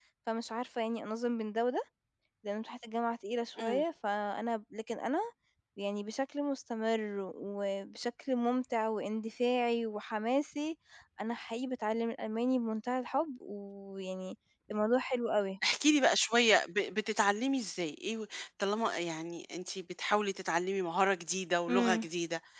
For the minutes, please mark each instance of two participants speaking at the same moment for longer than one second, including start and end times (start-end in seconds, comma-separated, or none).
none